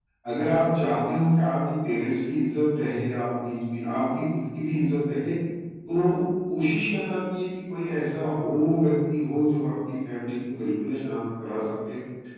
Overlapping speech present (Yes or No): No